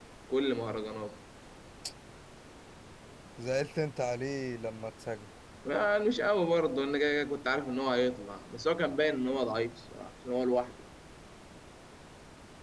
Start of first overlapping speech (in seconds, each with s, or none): none